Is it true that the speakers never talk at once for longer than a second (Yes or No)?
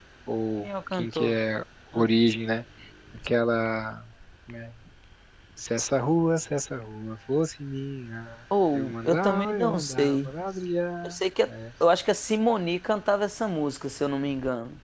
No